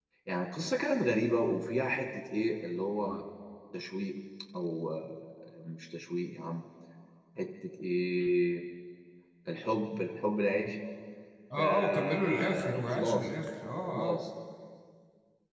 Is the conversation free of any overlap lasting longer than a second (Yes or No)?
No